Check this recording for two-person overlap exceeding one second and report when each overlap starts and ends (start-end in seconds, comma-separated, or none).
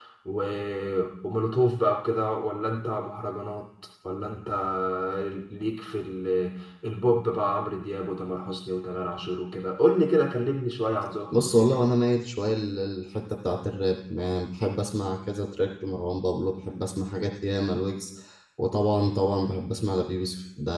none